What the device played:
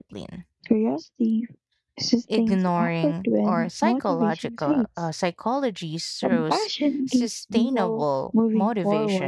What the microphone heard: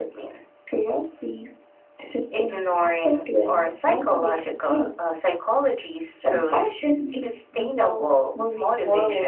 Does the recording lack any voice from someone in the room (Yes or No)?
Yes